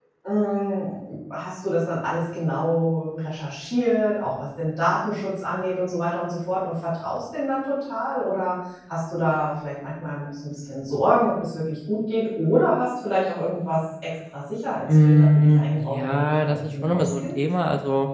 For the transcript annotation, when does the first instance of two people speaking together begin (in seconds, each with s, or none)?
14.9 s